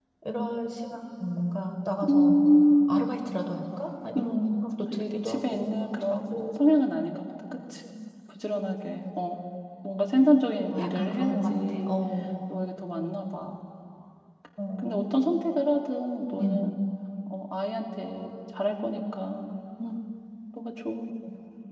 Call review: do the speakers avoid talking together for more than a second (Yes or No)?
No